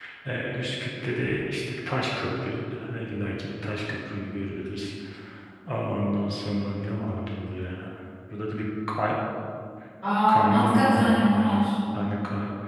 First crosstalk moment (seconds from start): 10.3 s

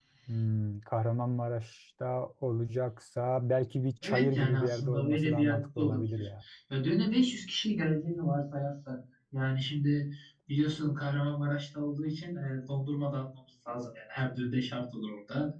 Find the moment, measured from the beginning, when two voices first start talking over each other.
4.0 s

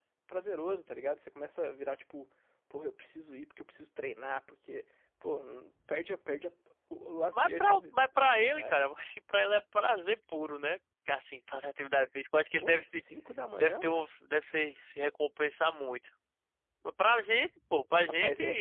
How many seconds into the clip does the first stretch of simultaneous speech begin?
7.3 s

